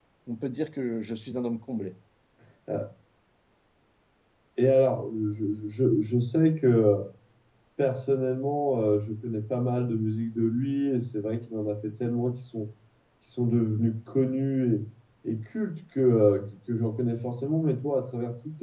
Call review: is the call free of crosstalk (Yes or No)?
Yes